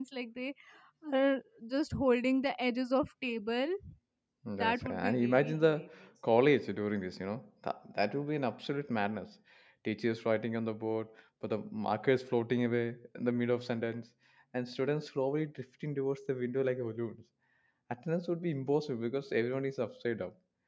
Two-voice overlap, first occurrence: 5 s

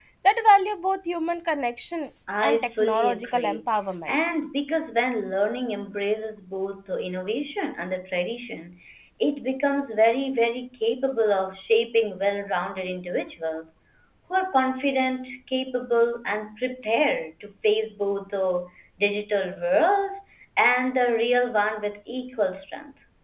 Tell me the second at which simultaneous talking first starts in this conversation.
2 s

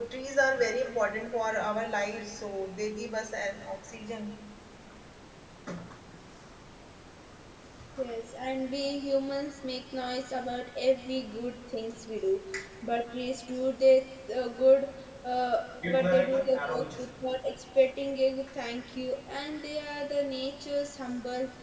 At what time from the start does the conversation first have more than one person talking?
16 s

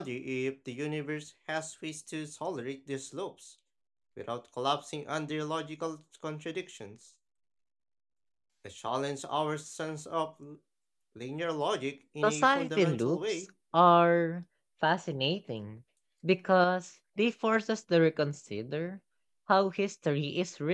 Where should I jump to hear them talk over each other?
12 s

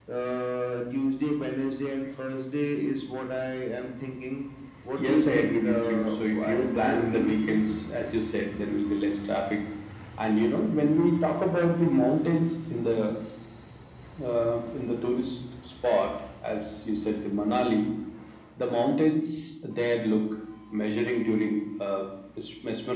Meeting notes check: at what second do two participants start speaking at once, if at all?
5 s

